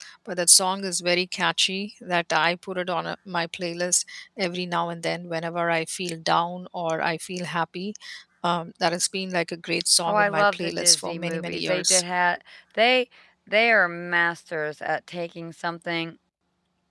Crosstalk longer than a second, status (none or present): present